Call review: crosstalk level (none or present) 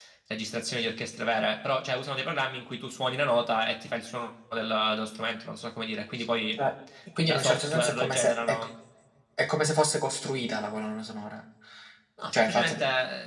present